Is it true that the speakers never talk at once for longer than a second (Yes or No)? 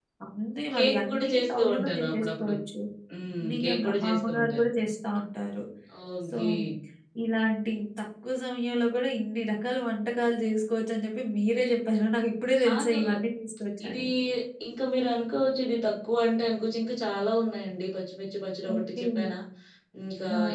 No